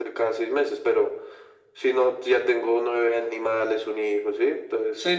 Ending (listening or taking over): taking over